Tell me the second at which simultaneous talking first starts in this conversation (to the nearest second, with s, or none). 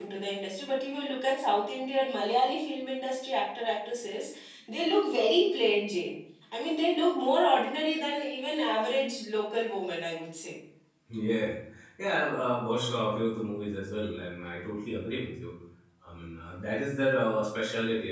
none